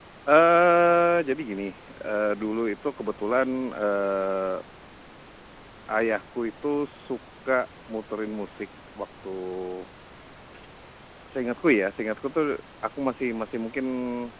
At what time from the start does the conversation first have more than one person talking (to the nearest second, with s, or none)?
none